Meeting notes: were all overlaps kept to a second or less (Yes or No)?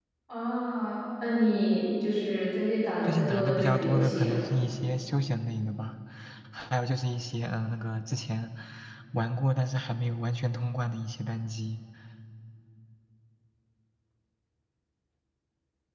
No